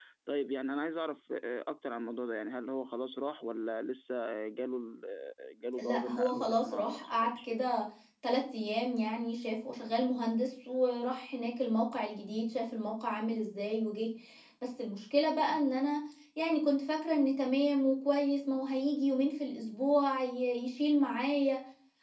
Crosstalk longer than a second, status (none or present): present